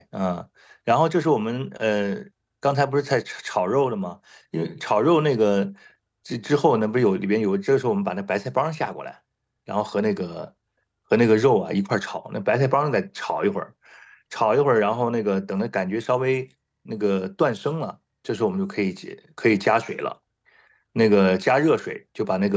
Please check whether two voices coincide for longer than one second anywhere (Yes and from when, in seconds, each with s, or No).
No